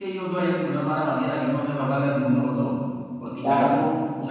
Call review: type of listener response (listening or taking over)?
listening